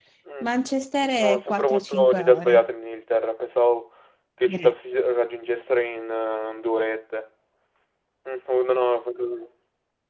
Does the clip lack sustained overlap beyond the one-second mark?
No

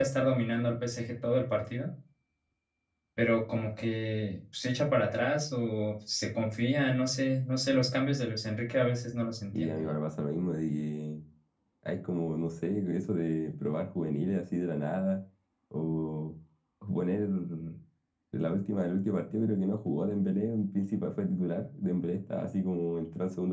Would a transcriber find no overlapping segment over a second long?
Yes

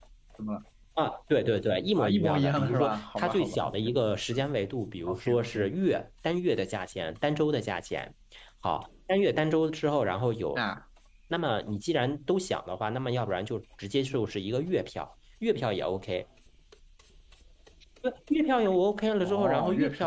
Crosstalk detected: Yes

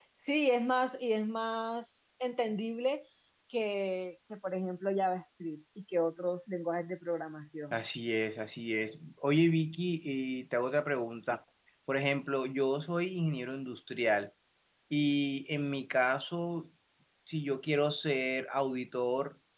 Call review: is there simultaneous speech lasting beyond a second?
No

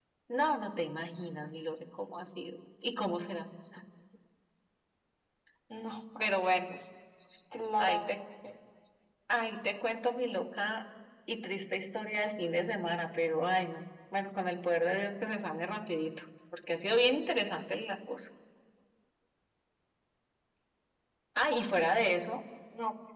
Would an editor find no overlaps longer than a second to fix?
Yes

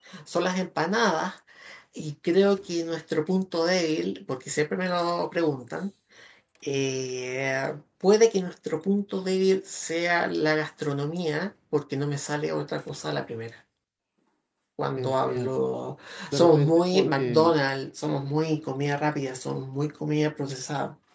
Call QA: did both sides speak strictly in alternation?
No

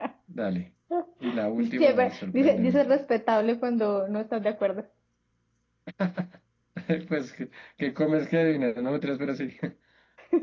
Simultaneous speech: Yes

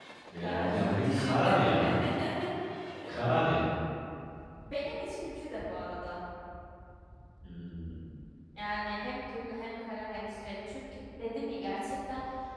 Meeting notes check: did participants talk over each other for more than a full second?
Yes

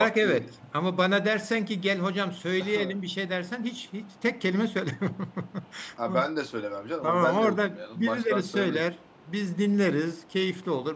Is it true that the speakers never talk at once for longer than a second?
No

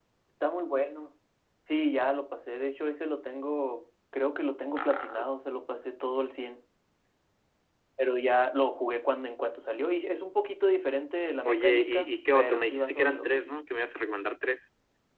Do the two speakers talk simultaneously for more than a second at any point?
Yes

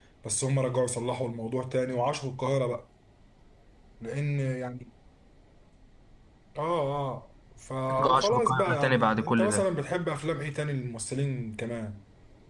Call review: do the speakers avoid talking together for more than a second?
No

